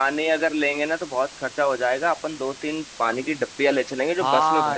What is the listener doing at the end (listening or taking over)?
taking over